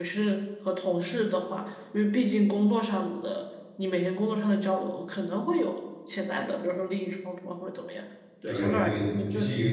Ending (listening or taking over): taking over